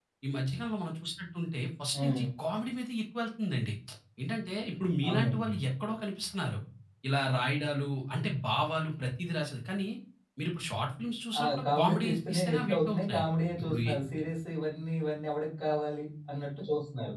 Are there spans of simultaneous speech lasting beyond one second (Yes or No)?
Yes